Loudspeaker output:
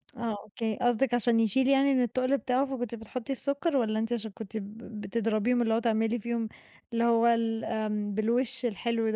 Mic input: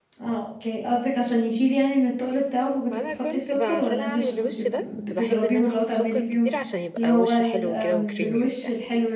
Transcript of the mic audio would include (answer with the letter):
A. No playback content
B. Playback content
B